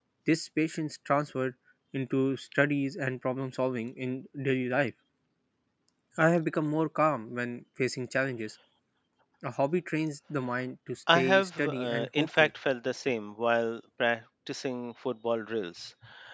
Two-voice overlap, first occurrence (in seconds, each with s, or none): 11.1 s